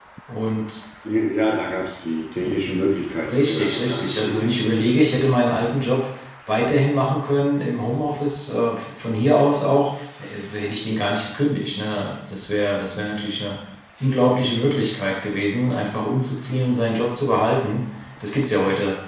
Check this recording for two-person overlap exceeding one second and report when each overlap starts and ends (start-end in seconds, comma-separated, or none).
3.3-4.7